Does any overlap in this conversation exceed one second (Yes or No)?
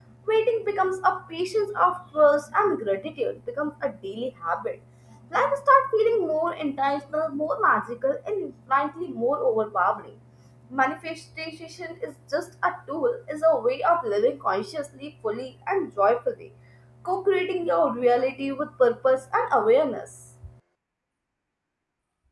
No